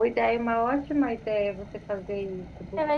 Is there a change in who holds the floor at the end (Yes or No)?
Yes